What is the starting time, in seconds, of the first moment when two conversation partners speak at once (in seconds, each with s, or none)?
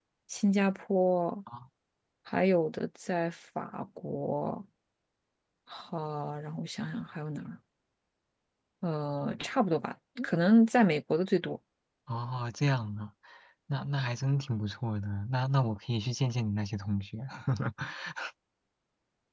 none